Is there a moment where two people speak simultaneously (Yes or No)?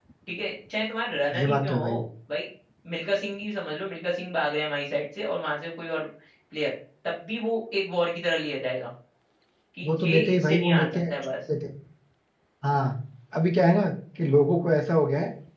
Yes